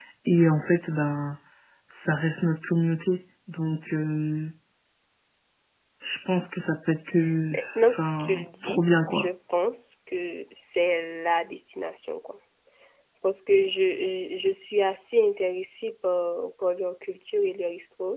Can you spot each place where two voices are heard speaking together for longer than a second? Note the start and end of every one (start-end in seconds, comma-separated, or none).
7.5-9.3